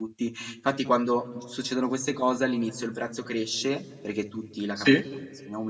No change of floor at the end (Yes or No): Yes